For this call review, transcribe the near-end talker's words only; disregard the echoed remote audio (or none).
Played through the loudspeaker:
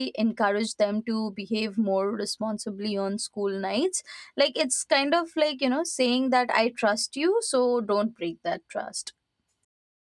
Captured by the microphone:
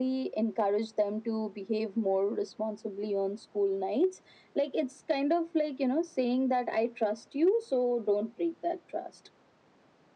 none